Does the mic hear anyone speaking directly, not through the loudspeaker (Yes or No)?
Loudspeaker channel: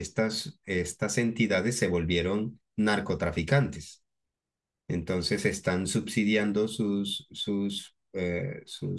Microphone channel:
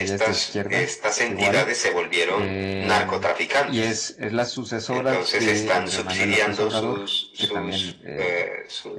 Yes